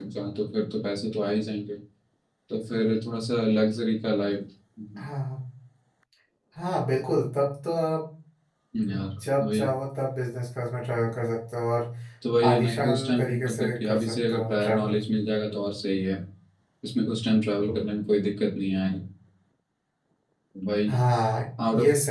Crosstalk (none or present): present